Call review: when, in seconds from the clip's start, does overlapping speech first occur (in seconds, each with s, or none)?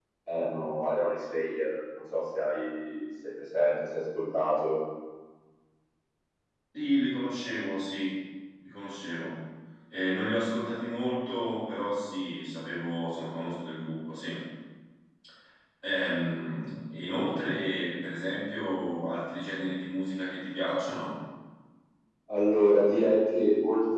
none